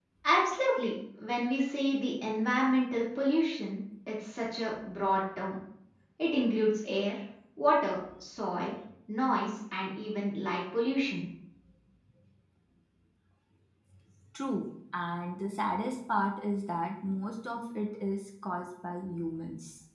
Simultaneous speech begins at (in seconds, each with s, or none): none